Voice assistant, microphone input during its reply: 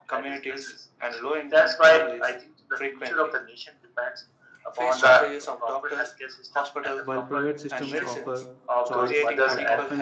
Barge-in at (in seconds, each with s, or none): 7.0 s